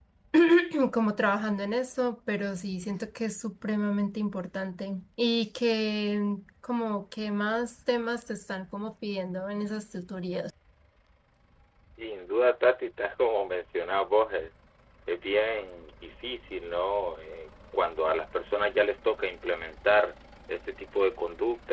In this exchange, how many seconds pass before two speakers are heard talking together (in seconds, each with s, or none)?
none